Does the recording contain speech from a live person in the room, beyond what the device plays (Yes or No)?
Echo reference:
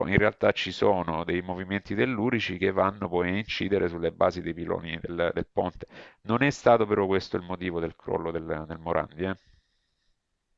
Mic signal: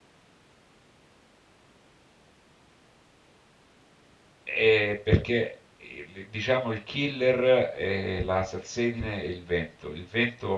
Yes